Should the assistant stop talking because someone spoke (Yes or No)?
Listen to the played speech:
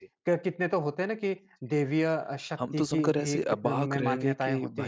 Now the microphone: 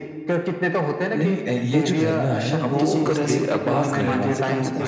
Yes